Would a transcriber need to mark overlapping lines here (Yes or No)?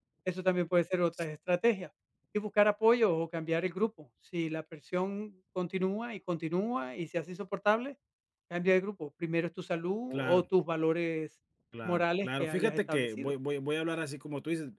Yes